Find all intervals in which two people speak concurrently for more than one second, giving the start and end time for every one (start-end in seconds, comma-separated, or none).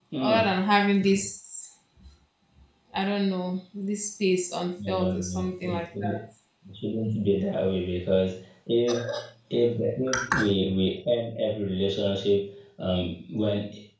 4.9-6.2